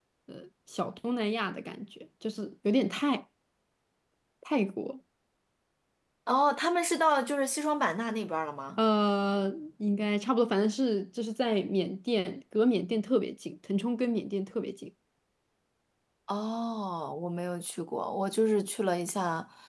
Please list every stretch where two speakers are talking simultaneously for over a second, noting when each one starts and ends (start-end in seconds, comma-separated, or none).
none